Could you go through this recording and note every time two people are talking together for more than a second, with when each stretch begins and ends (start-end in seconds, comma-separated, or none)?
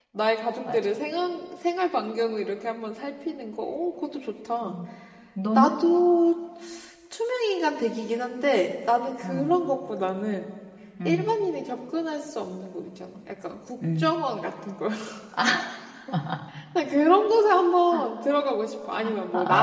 none